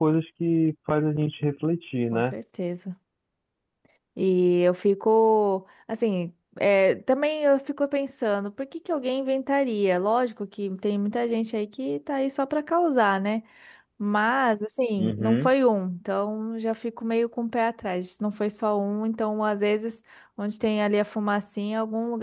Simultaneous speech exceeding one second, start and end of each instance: none

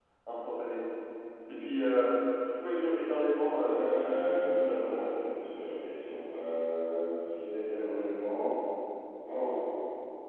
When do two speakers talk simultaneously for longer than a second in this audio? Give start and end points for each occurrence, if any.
3.6-5.1

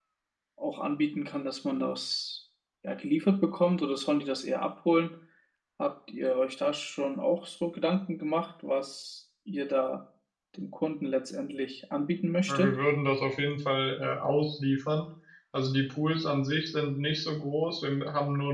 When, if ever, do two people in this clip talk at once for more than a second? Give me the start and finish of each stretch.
none

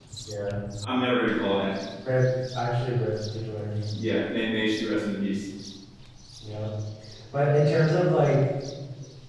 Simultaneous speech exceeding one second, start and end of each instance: none

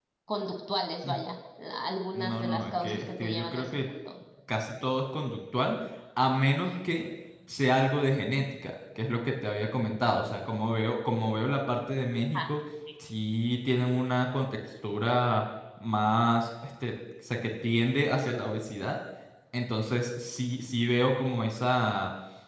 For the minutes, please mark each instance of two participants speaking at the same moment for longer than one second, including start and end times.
2.1-3.6

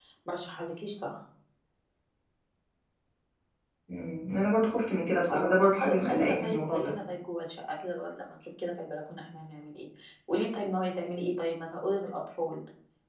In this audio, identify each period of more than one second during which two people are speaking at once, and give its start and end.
5.3-6.9

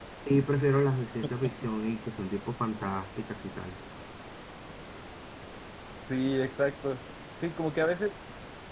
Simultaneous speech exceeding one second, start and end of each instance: none

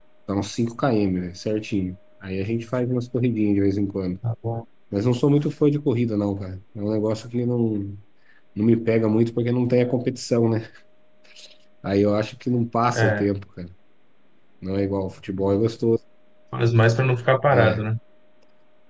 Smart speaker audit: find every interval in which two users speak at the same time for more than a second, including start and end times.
none

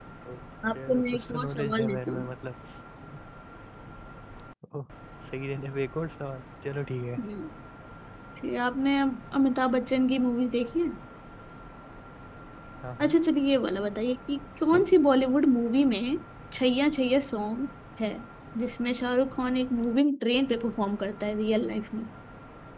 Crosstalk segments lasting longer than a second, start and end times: 0.8-2.3

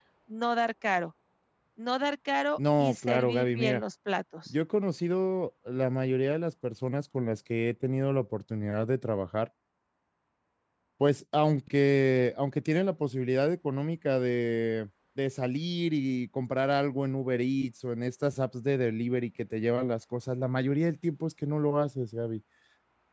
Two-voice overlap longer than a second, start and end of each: 2.6-3.8

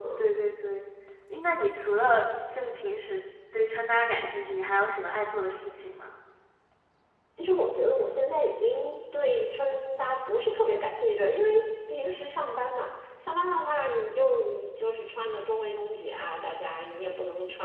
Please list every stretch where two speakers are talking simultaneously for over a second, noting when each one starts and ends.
none

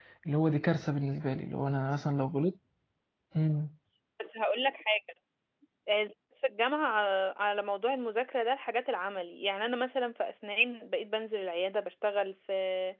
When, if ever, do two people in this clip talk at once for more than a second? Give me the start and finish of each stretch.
none

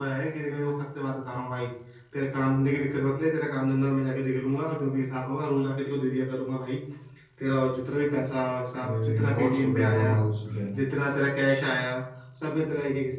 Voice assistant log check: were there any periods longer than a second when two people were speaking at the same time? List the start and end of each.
8.8-10.1

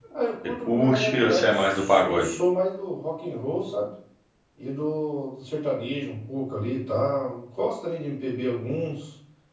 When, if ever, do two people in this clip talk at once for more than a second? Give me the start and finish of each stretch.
0.7-2.3

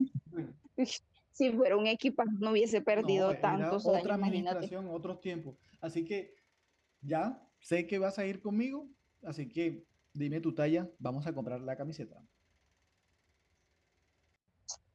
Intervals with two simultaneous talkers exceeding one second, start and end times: 2.9-4.6

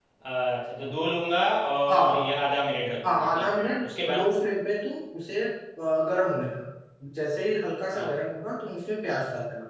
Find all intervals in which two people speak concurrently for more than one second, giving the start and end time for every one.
3.0-4.3

